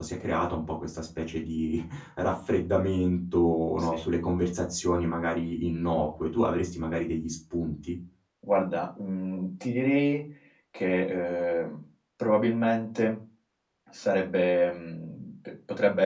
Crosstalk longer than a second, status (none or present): none